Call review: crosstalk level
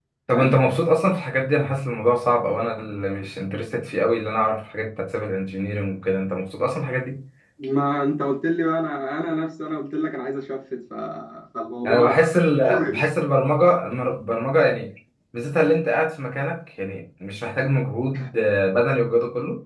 present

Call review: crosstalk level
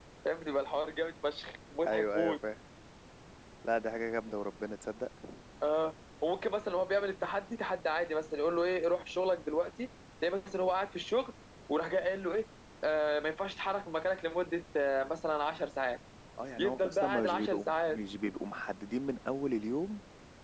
present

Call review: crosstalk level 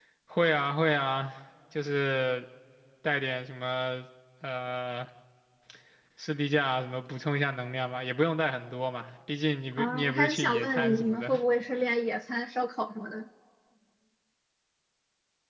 present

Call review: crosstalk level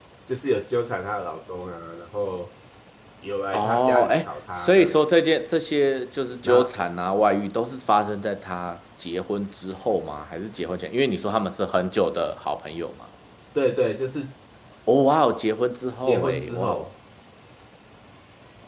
present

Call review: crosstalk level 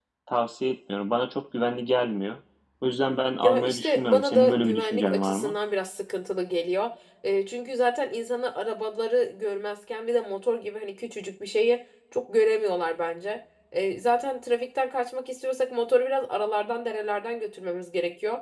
present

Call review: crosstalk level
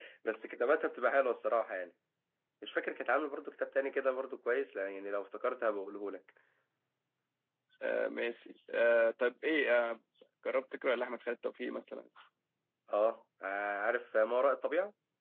none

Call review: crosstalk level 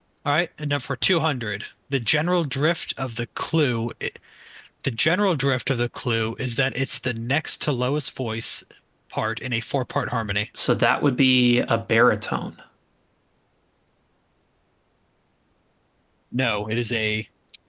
none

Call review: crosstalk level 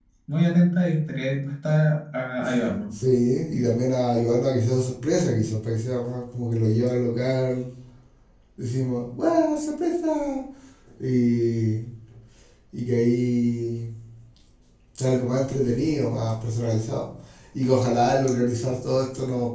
none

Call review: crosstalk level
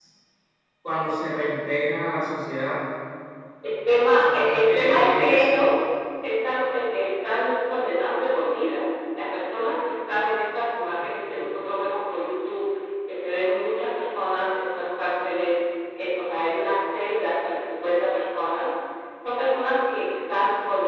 present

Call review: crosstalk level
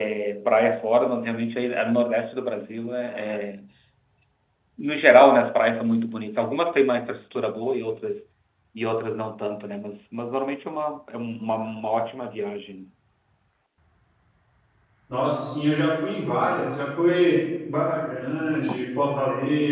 none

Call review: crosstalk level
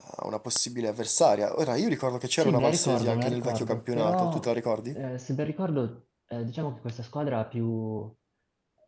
present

